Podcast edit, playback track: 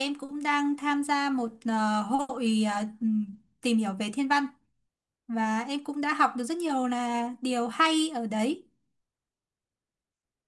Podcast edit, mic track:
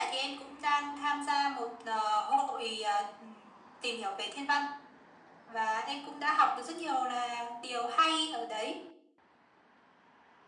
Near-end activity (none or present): none